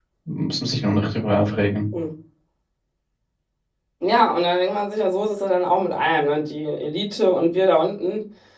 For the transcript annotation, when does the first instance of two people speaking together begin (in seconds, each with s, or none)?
none